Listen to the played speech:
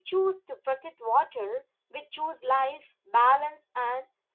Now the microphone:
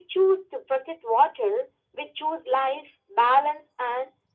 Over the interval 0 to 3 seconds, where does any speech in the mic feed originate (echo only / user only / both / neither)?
echo only